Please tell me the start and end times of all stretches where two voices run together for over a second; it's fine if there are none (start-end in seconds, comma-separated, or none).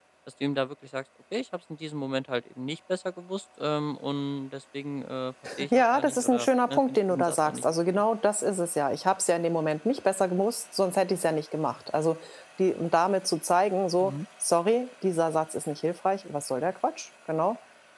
5.8-8.0